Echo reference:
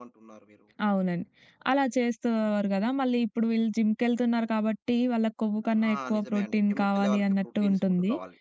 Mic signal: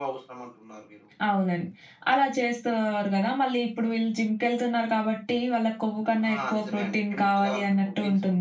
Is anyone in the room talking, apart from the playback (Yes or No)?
No